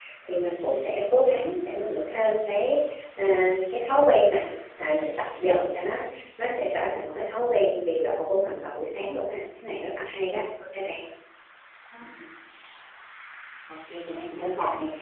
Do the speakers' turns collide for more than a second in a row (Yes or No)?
No